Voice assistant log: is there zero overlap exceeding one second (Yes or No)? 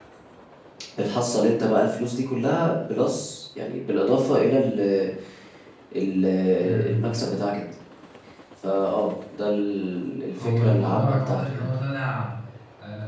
No